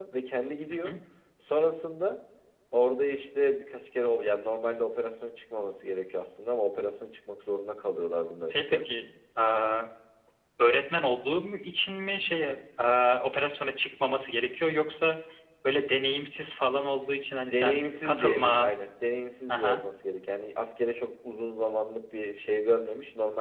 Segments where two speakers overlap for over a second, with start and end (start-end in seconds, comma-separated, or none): 17.4-18.7